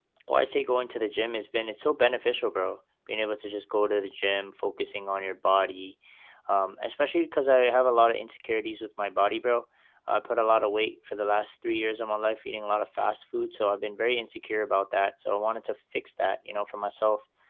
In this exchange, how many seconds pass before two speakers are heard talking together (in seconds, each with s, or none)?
none